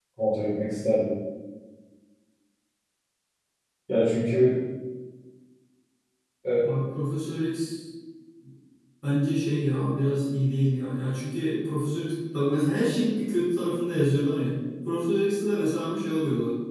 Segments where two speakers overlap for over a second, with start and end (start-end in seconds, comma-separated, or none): none